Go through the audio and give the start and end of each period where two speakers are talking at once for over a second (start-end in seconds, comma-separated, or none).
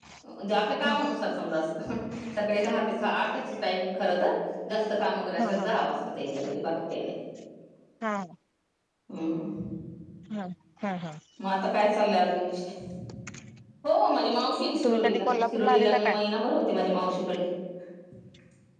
14.8-16.1